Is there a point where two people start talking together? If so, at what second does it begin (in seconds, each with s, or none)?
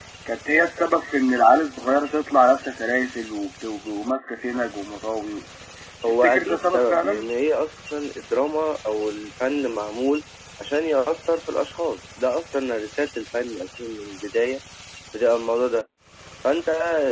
6.1 s